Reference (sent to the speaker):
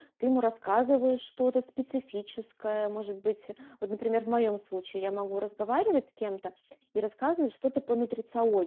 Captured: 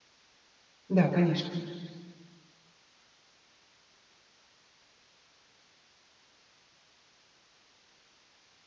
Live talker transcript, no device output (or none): Да, конечно.